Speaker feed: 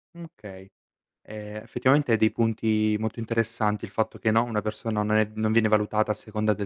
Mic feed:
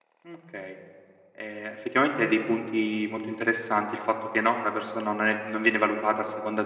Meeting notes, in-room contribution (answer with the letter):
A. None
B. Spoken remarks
A